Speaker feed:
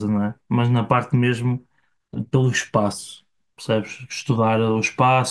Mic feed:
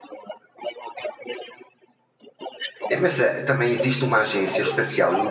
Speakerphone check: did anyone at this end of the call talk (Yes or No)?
Yes